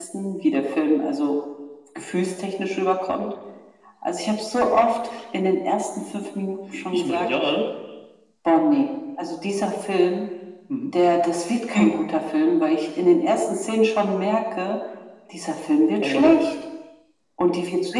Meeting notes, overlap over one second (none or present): none